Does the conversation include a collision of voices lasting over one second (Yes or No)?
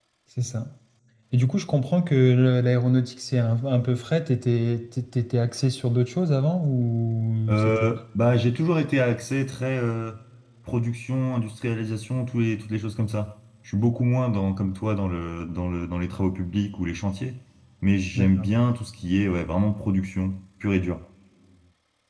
No